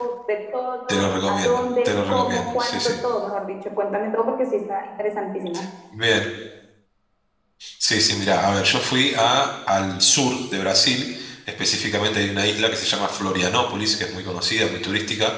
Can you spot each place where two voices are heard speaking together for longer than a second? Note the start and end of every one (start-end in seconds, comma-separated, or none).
0.9-2.9